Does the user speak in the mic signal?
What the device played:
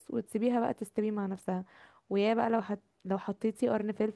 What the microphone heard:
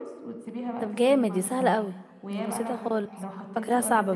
Yes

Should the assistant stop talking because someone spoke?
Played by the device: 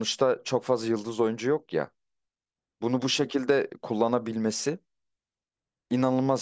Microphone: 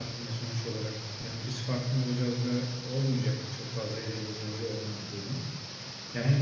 Yes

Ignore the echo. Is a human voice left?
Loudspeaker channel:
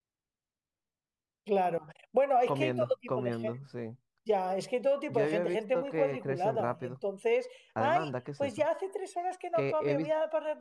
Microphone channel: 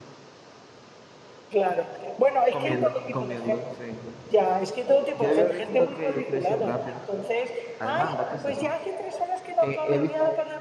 No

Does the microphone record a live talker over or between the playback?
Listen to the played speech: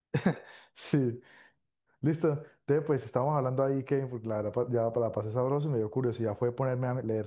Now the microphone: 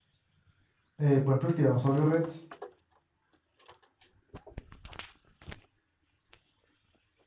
Yes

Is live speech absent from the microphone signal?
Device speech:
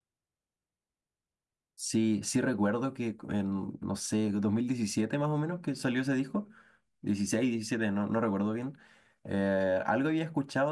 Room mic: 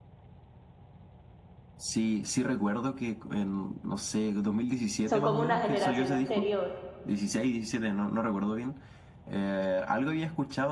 No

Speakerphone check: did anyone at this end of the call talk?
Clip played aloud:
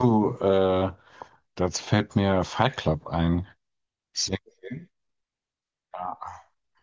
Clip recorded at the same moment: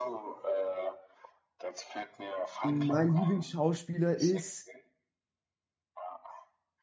Yes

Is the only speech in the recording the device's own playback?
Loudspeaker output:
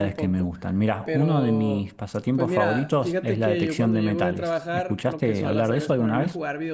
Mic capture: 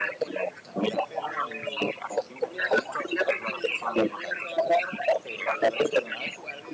Yes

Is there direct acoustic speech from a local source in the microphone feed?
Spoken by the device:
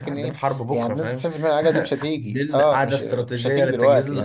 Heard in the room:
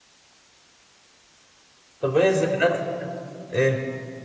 Yes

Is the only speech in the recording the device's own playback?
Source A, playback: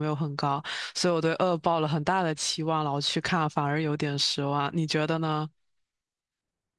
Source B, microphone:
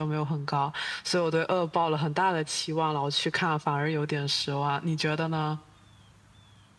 Yes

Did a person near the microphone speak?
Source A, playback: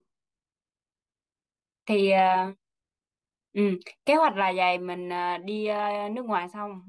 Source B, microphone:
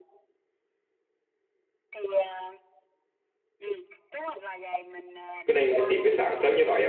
Yes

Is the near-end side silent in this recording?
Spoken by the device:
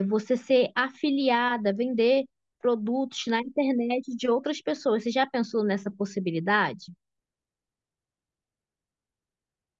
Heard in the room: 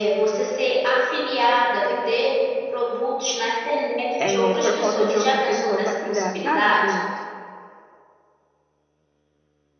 No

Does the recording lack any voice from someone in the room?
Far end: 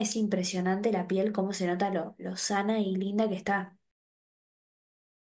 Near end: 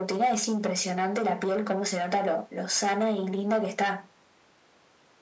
Yes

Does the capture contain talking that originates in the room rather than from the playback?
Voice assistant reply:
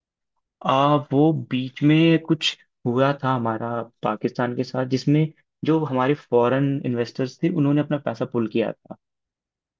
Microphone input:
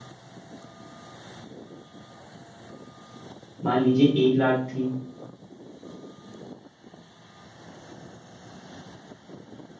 Yes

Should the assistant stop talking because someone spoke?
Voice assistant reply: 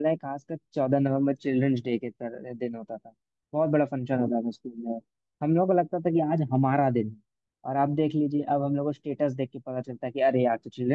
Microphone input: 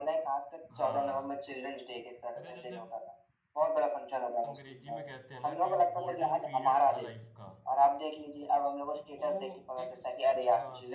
Yes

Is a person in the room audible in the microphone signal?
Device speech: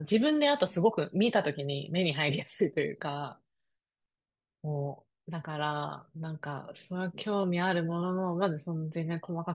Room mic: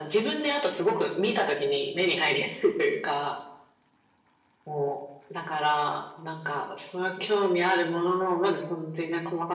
No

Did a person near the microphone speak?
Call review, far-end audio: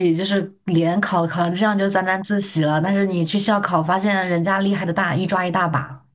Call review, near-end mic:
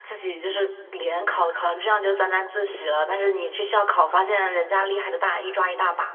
No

